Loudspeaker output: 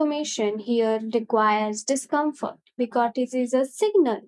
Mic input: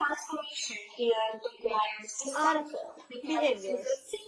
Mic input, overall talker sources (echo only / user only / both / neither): both